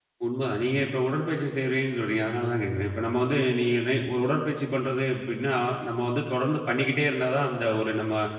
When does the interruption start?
none

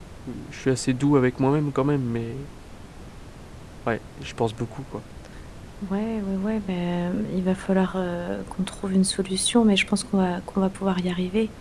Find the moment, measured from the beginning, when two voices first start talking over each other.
none

